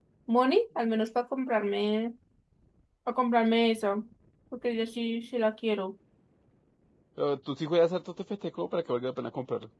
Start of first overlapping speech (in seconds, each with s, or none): none